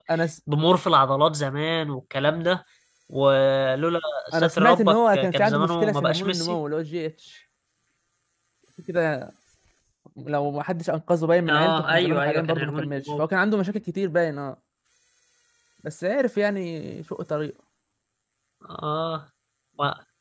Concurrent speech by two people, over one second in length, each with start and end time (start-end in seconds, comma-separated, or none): 4.3-6.6, 11.5-13.2